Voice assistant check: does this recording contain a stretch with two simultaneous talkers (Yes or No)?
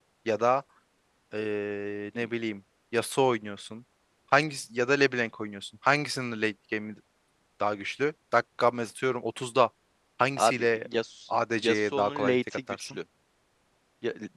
Yes